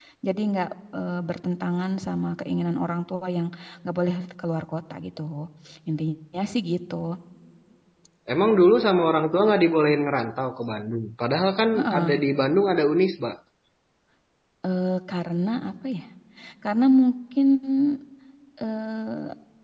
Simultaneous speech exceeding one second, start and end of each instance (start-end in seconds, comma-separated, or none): none